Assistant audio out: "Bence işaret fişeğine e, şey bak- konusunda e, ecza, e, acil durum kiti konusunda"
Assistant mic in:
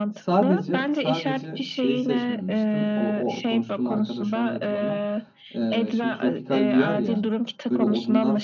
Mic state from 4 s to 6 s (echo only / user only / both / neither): both